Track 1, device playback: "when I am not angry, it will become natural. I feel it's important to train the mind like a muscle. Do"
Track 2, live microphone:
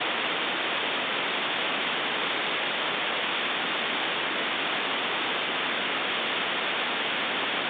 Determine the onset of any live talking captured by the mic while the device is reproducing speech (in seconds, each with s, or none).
none